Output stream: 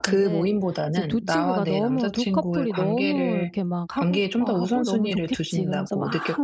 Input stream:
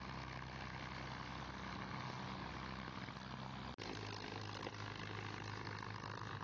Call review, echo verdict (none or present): none